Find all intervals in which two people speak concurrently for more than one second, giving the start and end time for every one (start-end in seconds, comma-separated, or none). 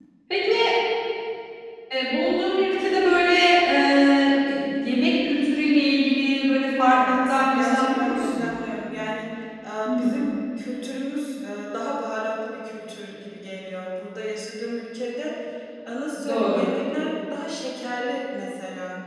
6.9-8.4